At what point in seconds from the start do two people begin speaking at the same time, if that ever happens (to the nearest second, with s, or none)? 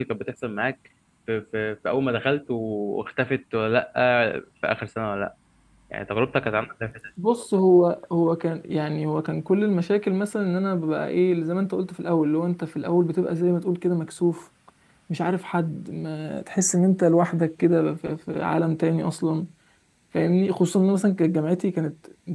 none